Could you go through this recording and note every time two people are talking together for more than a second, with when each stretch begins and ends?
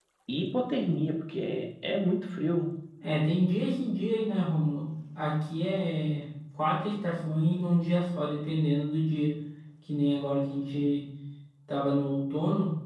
none

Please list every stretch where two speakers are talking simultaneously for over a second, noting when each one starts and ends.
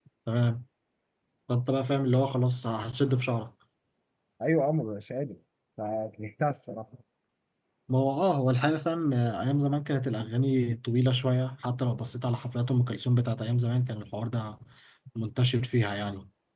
none

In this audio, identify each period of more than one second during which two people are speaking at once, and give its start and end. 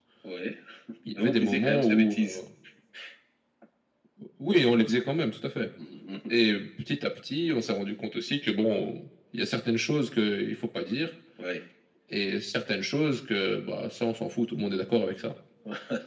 1.1-2.4

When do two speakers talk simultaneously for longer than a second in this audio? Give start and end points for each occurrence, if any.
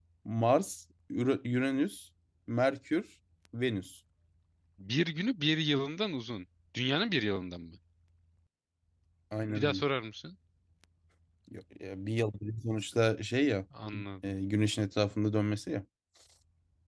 none

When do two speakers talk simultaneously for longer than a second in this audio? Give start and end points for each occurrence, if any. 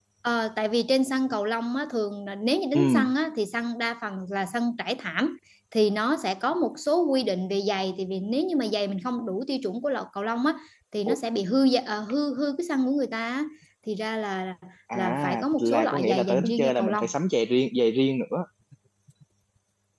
14.9-17.0

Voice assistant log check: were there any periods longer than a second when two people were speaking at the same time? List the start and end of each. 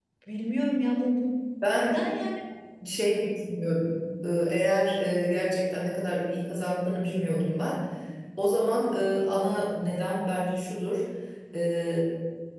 none

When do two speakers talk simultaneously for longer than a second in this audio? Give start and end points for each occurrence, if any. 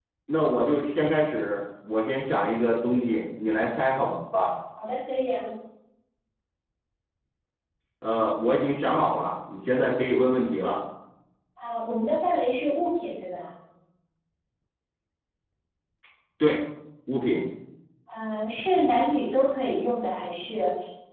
none

